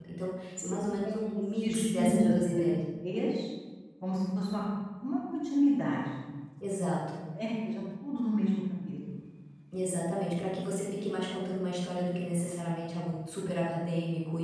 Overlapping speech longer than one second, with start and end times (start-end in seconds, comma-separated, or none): 0.6-2.6